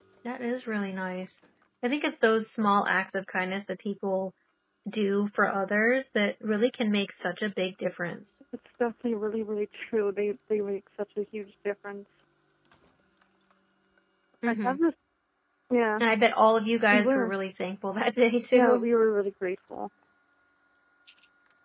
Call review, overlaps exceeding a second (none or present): none